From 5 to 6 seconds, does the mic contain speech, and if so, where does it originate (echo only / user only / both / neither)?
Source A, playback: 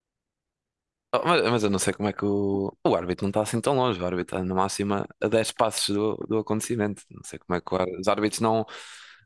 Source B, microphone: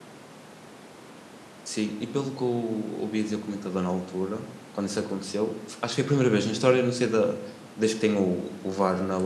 user only